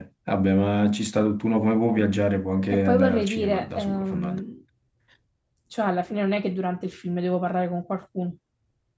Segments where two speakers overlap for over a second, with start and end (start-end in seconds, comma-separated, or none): 2.7-4.4